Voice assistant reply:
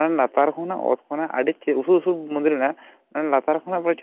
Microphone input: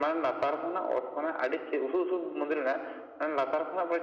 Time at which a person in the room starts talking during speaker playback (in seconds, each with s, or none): none